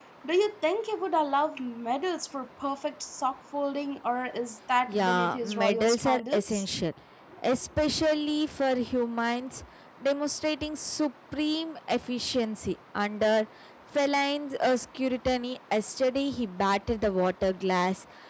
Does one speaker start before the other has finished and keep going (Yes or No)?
Yes